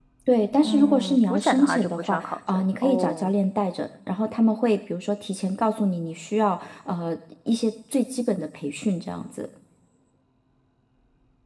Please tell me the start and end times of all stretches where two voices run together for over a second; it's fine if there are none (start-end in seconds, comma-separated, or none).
0.6-3.3